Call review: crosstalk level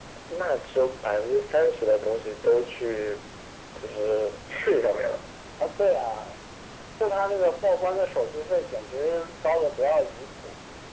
none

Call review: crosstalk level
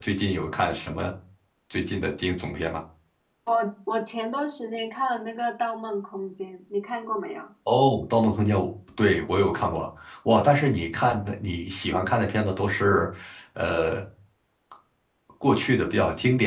none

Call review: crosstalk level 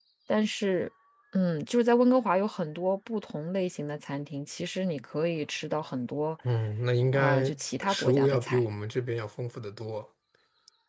present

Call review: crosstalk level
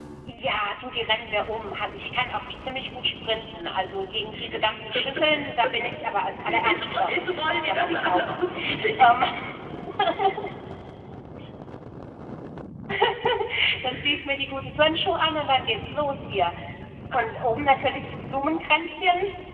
present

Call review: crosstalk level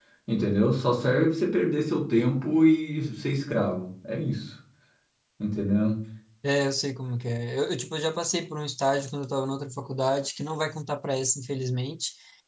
none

